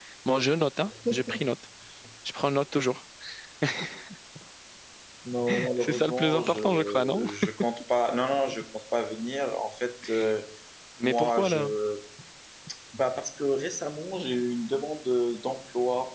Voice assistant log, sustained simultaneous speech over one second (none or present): present